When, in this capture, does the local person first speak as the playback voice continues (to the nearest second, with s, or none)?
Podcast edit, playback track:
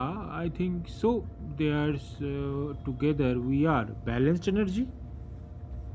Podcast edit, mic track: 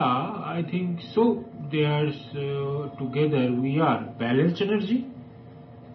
none